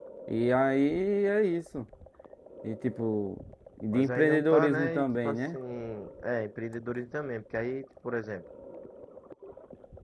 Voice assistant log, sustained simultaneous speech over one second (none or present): present